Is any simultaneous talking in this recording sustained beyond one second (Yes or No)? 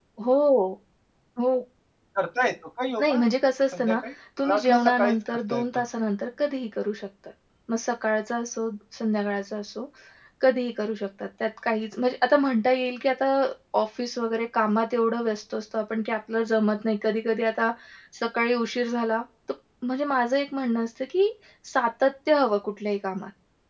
Yes